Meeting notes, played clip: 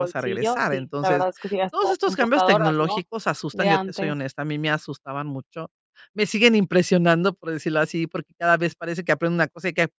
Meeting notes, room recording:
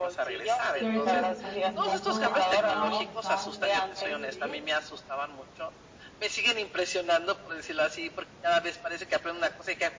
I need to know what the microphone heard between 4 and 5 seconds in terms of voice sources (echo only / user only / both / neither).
both